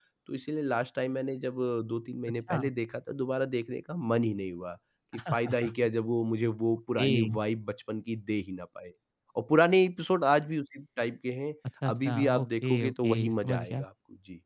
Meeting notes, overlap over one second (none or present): present